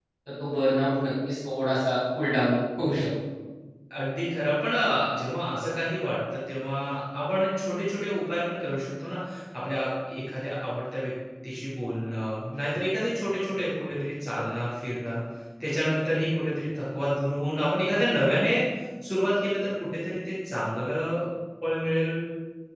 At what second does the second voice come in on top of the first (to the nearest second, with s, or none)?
none